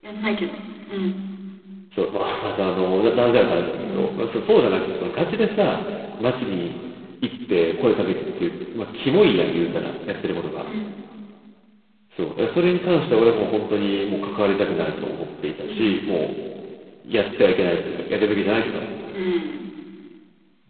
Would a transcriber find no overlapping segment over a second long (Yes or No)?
Yes